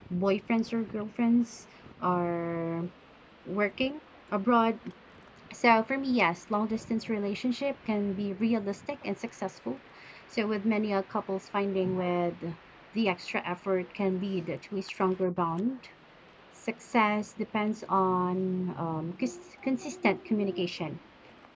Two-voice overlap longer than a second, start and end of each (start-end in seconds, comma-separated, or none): none